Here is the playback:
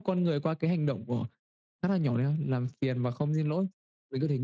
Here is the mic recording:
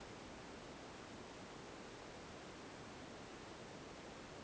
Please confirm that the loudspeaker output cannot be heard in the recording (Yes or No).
Yes